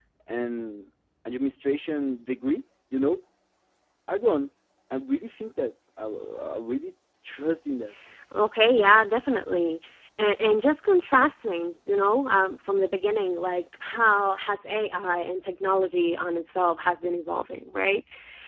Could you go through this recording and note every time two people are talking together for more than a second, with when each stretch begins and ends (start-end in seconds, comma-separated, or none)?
none